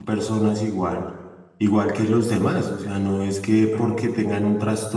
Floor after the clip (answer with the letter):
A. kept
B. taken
A